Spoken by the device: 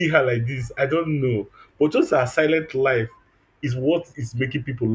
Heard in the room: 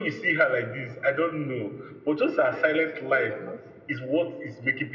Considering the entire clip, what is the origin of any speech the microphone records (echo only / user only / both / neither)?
both